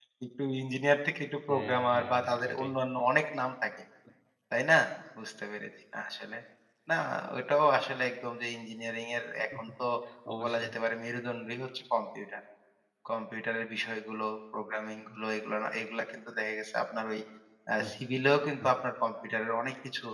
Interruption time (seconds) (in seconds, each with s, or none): 1.5 s